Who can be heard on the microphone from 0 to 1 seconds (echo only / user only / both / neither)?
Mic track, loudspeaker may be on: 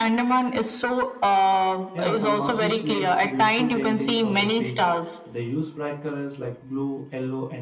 echo only